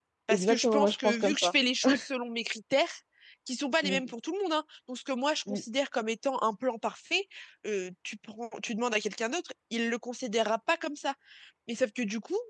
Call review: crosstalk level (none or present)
present